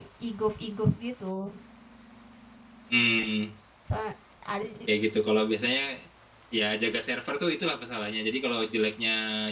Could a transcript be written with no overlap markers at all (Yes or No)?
Yes